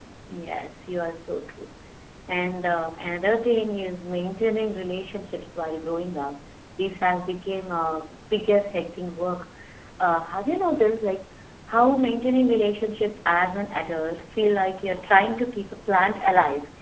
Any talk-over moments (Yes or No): No